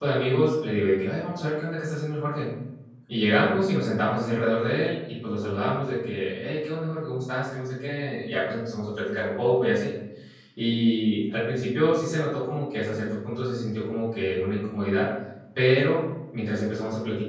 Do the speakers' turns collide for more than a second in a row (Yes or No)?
No